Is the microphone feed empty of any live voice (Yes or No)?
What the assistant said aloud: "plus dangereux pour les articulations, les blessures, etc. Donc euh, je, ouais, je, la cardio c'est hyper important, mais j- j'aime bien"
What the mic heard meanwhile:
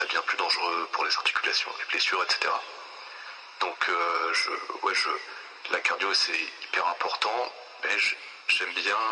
Yes